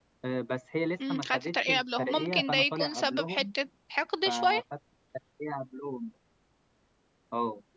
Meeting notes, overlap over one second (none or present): present